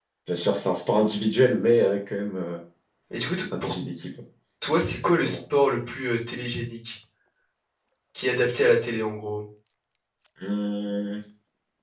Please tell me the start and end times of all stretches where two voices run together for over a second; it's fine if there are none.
none

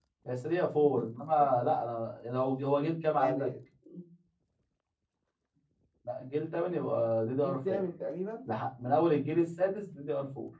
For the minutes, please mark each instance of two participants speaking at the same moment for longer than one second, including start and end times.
none

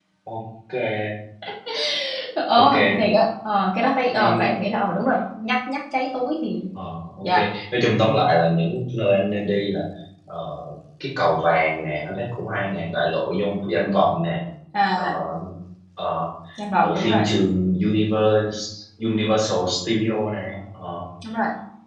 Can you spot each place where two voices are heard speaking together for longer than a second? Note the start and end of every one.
none

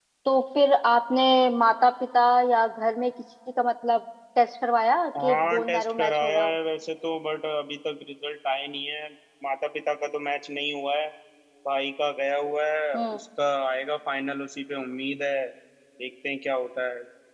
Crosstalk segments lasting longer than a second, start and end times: 5.2-6.6

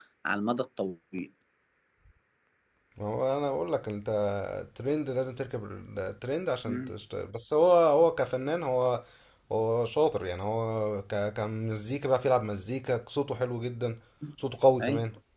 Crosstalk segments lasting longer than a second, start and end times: none

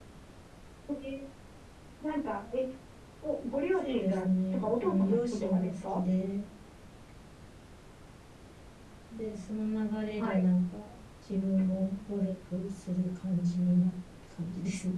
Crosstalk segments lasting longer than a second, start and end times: 3.8-6.0

